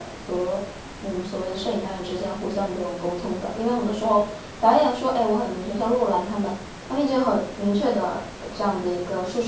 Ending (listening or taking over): listening